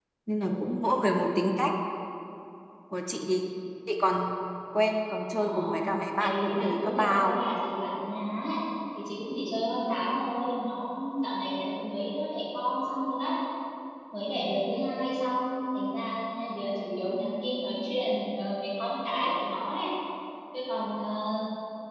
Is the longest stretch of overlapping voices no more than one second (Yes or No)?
No